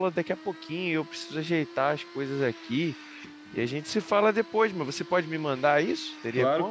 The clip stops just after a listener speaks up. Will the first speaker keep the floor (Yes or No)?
No